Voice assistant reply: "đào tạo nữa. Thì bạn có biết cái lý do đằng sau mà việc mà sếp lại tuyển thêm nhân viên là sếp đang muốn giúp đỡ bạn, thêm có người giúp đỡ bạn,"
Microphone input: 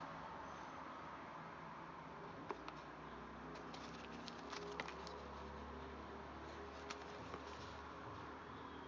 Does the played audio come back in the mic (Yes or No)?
No